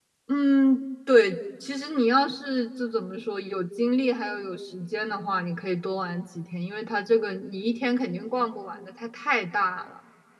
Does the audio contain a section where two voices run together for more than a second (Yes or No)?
No